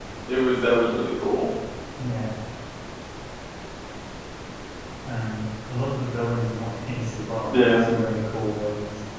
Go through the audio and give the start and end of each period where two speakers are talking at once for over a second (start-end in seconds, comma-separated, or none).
none